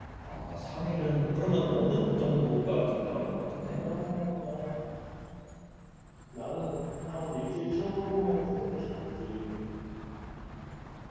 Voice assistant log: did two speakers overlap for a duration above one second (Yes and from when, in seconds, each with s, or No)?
No